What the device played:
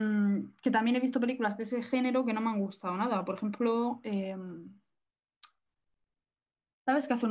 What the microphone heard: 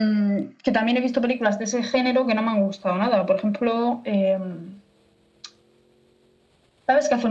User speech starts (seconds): none

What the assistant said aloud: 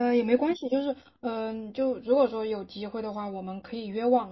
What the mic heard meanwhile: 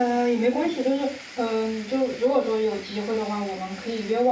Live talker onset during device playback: none

